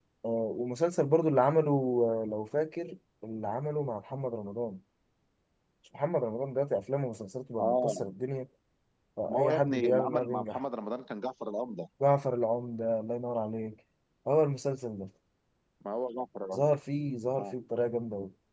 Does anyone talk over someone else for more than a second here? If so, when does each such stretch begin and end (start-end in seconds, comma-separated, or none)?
9.3-10.6